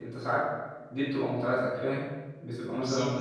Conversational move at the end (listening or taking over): listening